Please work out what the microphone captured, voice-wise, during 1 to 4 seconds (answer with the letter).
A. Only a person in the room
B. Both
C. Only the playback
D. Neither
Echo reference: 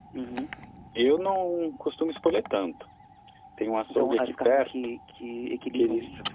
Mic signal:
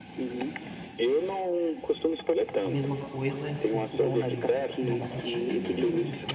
B